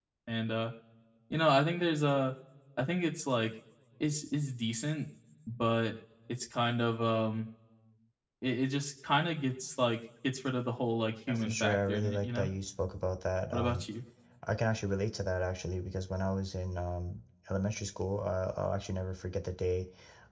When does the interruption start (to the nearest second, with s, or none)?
11 s